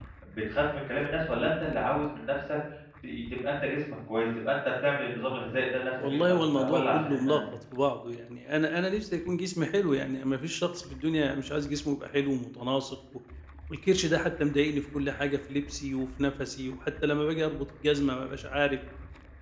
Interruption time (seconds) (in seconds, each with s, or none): 6.0 s